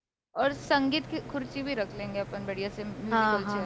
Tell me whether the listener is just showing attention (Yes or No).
No